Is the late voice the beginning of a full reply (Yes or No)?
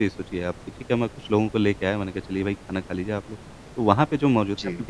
No